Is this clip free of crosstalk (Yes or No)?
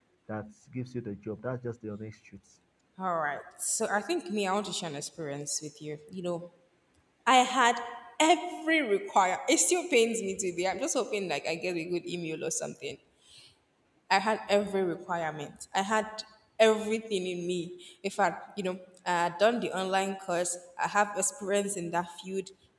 Yes